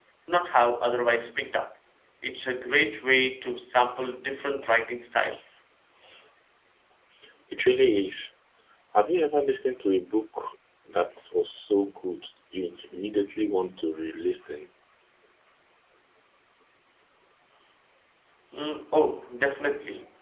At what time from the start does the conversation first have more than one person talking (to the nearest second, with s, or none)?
none